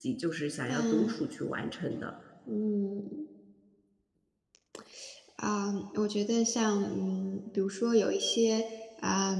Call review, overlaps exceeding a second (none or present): none